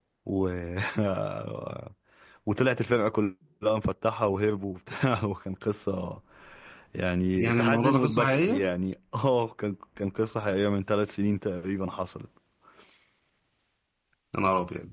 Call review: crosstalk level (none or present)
present